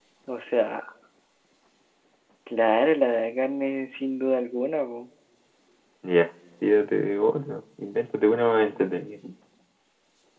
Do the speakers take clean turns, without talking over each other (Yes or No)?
Yes